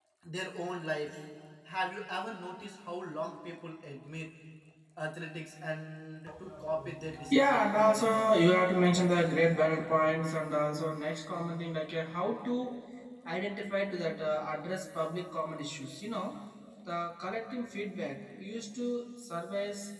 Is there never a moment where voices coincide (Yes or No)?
No